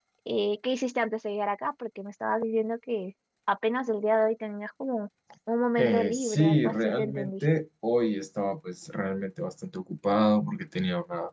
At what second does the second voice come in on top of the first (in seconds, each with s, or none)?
5.8 s